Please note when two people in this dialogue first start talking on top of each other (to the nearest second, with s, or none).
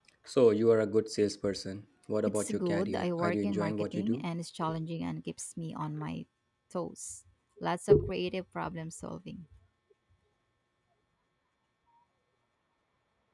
2 s